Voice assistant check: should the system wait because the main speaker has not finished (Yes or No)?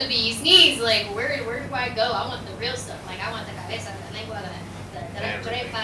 Yes